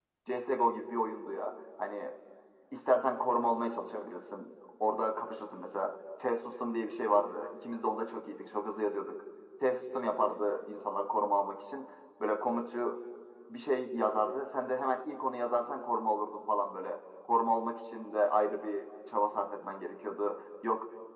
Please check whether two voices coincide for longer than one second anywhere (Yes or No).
No